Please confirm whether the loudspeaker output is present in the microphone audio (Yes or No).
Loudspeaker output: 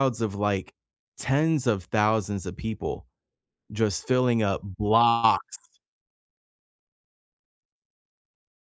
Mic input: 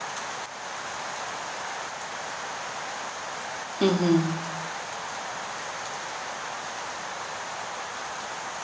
No